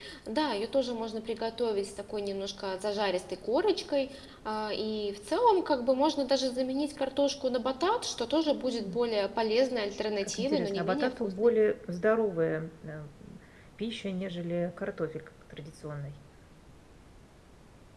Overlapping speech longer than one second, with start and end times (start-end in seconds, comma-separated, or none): 10.2-11.6